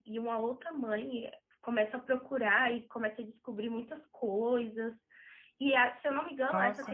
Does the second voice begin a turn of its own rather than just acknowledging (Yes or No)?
No